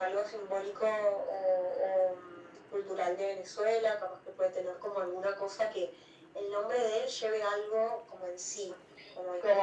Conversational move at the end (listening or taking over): taking over